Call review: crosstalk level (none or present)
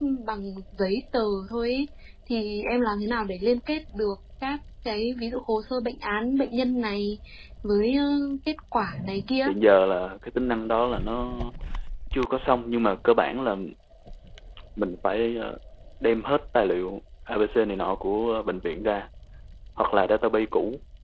none